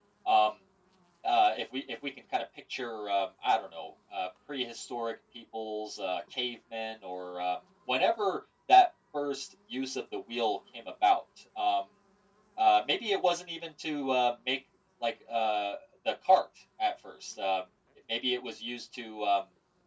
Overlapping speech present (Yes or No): No